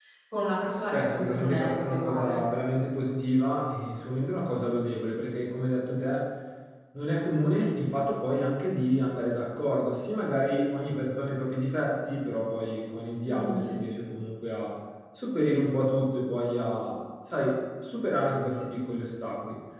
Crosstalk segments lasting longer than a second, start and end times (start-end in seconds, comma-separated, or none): 0.9-2.4